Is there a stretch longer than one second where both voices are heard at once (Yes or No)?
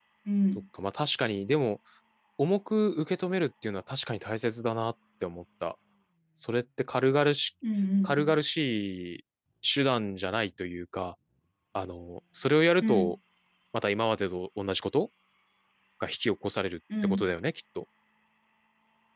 No